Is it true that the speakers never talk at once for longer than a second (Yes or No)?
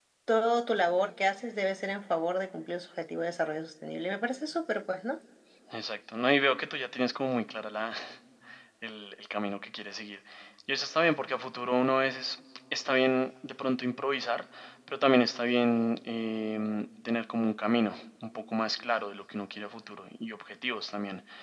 Yes